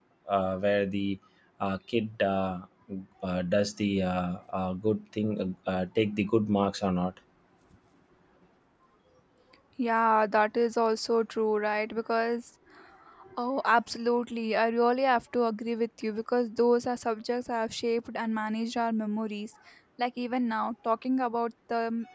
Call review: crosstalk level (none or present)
none